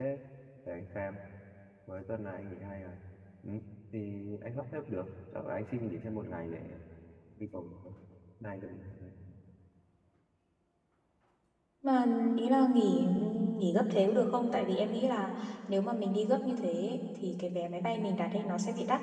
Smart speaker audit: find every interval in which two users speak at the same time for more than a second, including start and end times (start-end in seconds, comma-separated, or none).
none